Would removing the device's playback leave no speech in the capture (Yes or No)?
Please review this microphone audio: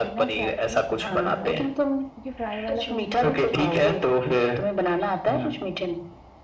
No